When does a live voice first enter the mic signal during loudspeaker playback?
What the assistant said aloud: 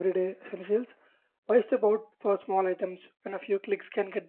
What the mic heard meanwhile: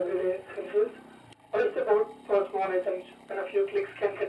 none

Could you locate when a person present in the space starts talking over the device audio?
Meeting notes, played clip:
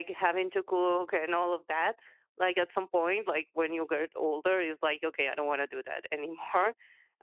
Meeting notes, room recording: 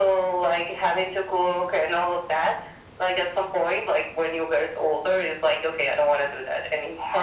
none

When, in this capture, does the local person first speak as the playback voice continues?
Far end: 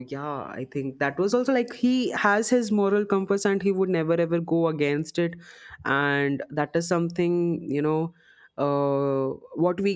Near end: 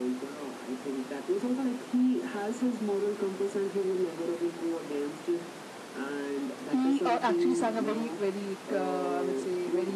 7 s

